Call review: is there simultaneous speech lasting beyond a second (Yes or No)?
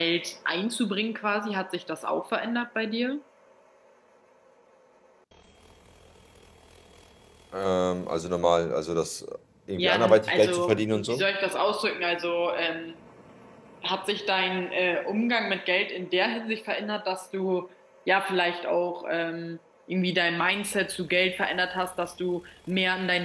Yes